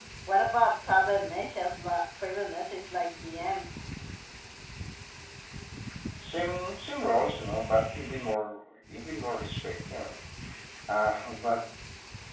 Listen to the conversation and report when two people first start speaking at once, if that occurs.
none

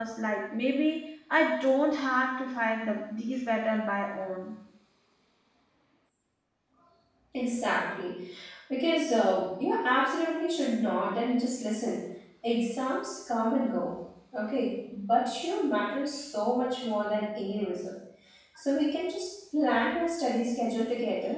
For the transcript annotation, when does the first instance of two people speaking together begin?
none

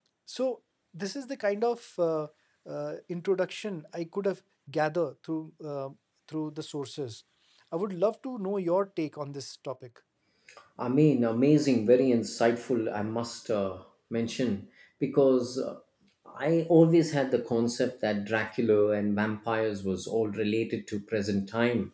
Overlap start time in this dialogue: none

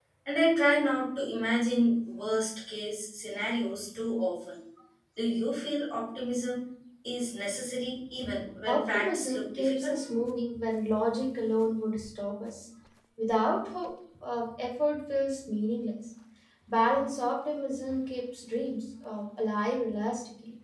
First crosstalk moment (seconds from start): 8.7 s

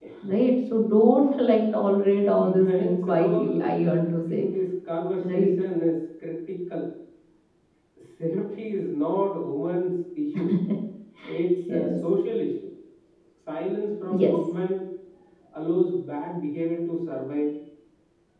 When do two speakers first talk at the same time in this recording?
2.4 s

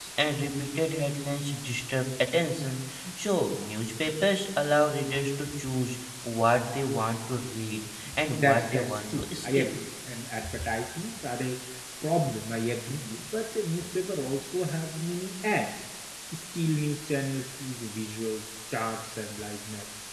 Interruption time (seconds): 8.3 s

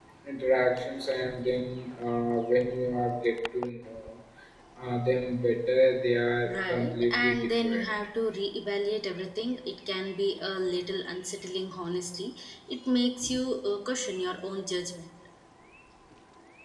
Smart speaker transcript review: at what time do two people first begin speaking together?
6.5 s

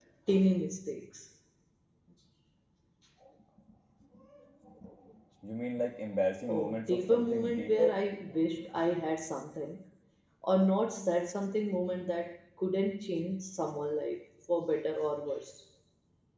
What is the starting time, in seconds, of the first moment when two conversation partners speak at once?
6.5 s

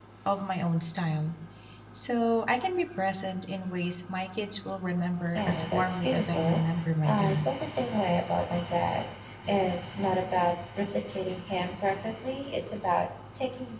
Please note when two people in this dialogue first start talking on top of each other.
5.4 s

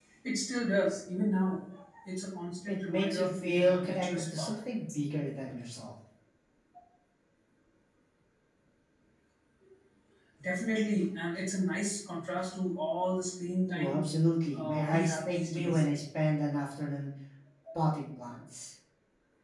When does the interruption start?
2.7 s

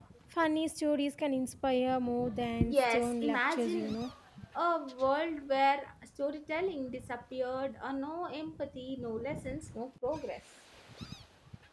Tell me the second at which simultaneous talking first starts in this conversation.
2.7 s

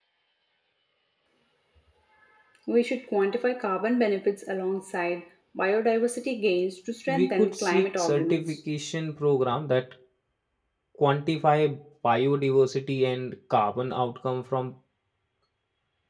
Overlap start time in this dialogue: 7.1 s

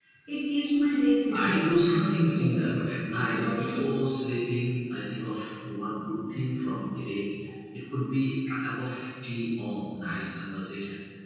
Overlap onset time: 1.3 s

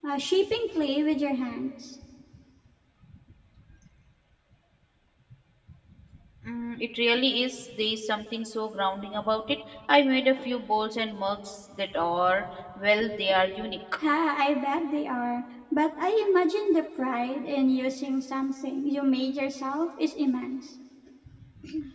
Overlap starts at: none

